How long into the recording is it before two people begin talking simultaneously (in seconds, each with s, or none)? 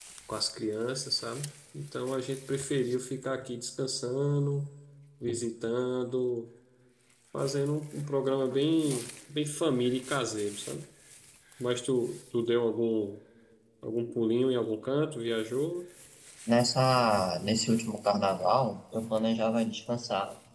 none